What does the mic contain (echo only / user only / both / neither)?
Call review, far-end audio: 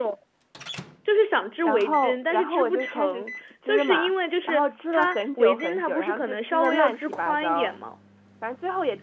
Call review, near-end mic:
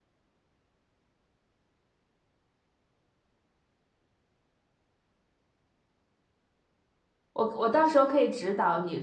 user only